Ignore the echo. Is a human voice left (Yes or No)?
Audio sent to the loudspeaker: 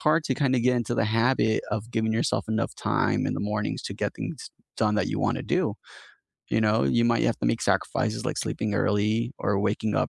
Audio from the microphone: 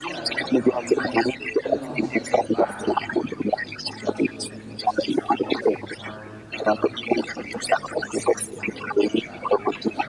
Yes